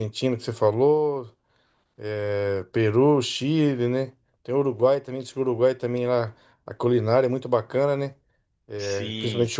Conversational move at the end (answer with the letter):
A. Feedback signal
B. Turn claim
B